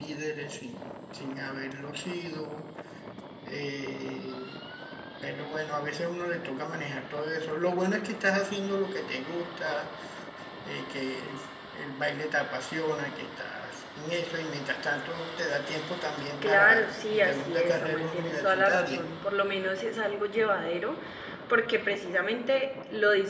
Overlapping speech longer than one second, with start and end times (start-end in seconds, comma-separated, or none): 16.4-19.0